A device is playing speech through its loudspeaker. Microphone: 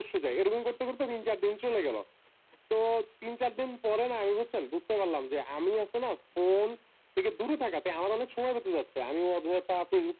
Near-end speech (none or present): none